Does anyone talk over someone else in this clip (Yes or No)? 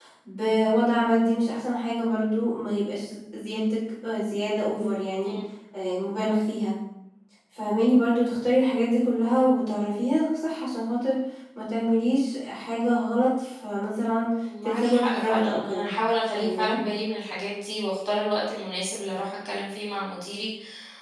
Yes